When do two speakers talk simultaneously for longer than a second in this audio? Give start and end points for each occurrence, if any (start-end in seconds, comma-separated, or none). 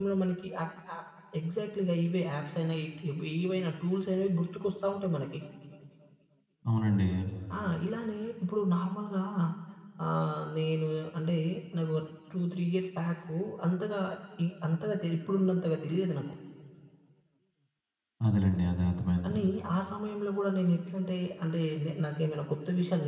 none